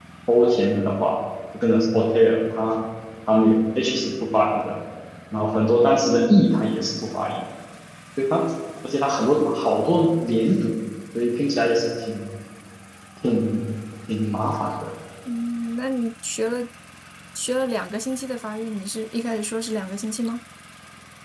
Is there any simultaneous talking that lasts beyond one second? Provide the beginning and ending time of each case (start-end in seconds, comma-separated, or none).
none